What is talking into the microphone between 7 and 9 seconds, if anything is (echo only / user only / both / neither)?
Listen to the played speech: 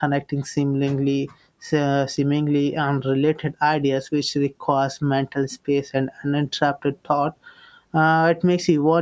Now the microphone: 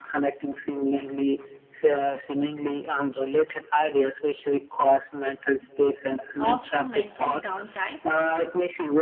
both